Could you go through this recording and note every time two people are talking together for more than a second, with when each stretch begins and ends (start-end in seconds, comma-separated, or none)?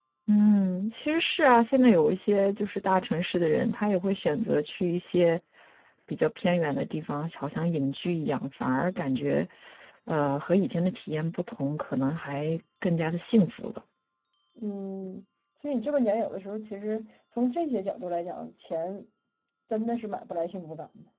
none